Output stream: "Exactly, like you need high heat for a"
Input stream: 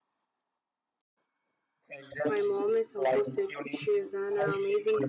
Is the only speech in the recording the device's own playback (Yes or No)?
No